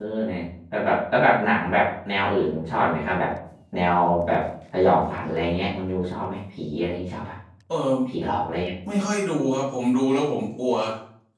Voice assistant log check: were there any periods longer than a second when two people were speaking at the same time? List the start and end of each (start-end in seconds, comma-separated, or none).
none